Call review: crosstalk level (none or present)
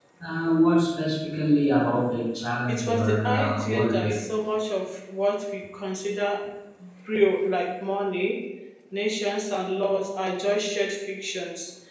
present